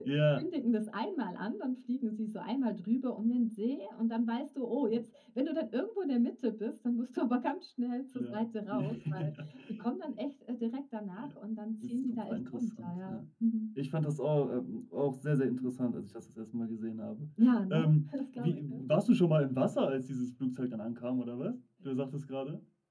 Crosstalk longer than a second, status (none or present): present